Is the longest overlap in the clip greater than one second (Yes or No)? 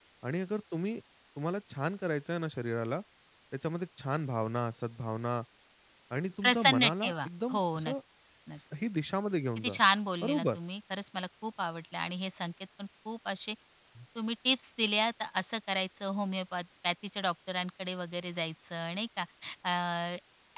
Yes